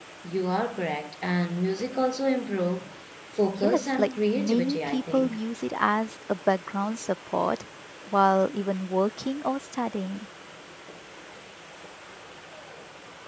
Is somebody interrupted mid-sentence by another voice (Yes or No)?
Yes